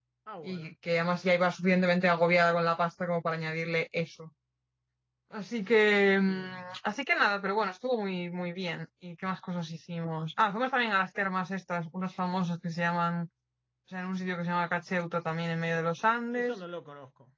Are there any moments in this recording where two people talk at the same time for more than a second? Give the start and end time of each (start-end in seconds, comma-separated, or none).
none